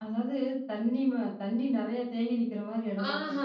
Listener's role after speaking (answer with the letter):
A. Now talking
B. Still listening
A